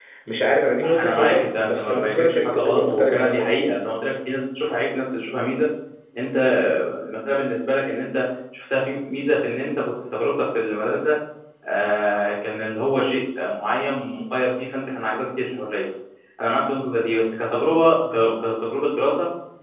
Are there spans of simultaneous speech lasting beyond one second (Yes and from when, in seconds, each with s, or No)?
Yes, from 1.0 s